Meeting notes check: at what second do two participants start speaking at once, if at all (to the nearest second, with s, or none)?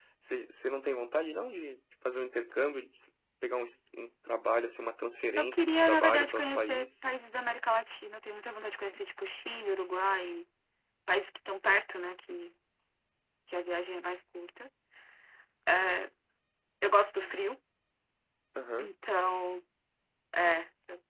5 s